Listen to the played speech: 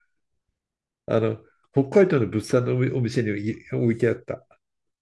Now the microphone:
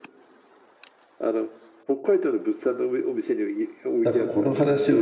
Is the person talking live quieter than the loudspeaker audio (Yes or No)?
No